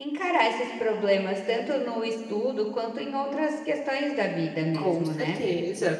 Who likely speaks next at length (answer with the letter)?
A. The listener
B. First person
A